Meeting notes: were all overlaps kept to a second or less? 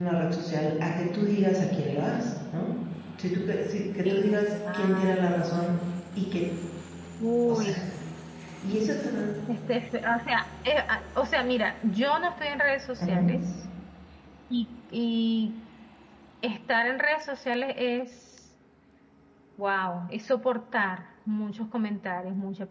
No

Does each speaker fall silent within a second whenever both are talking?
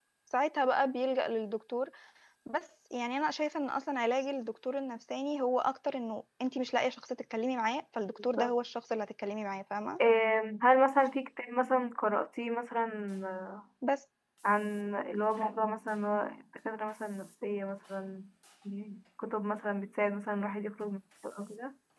Yes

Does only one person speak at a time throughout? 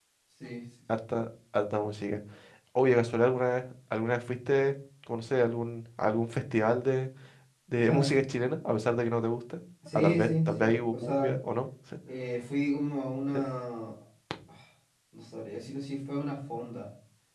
No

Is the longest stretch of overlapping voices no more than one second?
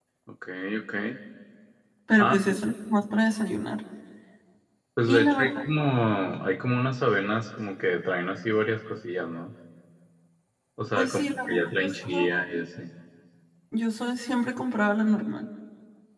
No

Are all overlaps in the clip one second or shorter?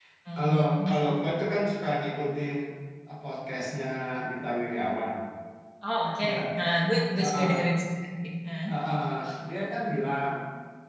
Yes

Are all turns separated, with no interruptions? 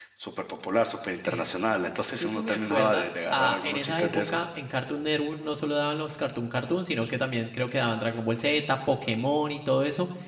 No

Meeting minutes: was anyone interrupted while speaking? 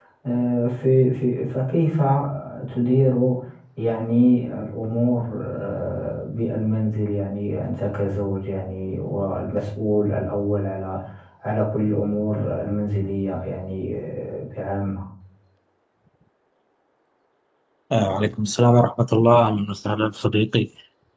No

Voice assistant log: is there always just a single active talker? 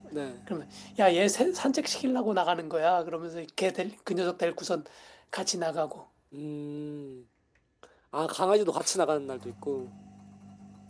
Yes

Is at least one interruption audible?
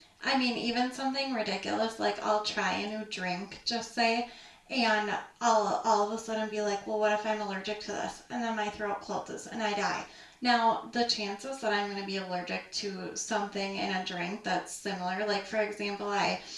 No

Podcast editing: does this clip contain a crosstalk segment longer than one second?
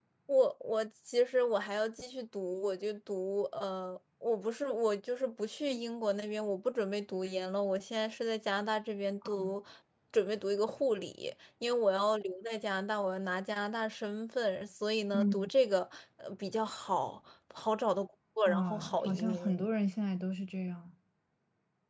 Yes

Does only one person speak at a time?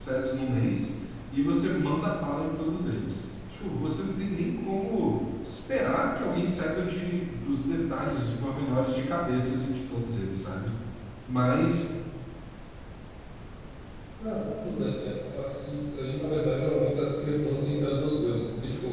Yes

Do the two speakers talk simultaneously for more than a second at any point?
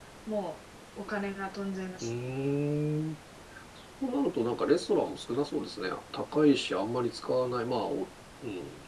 No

